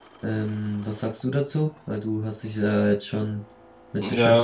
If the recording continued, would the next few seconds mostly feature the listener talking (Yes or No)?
Yes